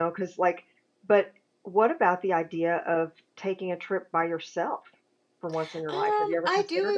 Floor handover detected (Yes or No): Yes